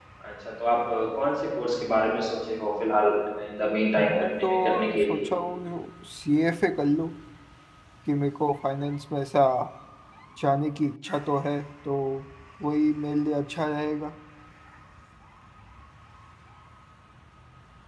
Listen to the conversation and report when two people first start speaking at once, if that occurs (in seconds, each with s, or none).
4.0 s